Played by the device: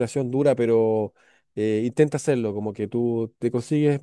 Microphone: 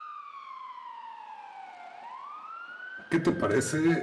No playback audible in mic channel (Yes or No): Yes